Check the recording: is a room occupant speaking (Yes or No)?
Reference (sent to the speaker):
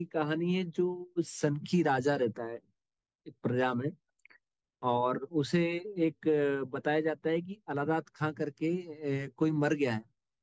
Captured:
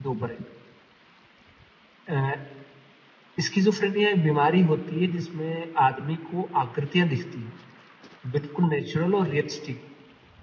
Yes